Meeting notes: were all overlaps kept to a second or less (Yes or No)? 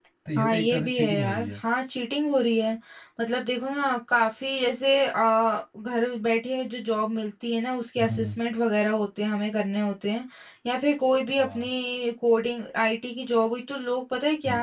No